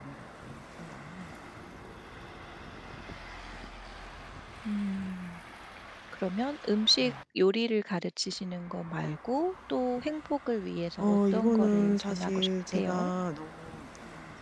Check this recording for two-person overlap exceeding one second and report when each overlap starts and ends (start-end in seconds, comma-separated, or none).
11.0-13.1